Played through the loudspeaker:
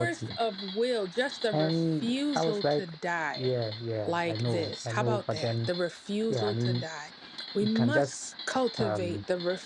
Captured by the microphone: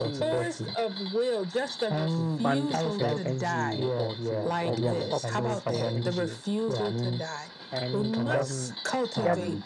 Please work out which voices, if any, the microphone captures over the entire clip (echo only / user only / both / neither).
both